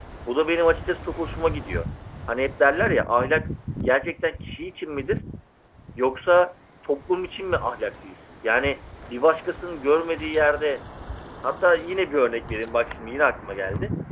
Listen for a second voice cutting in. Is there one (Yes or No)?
No